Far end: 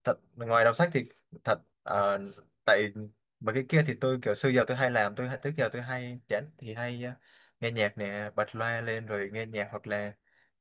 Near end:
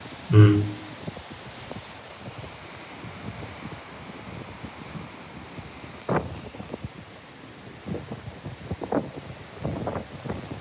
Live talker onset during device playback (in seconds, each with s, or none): 0.3 s